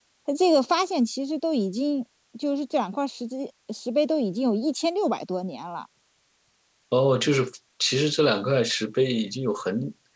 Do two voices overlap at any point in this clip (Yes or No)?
No